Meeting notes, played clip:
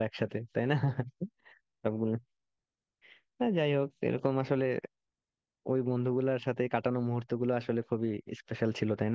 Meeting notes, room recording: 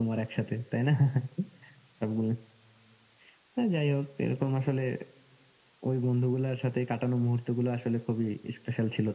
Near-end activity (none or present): none